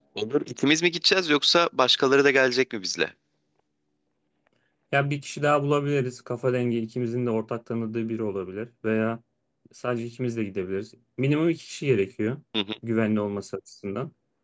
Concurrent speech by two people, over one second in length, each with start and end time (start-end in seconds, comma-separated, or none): none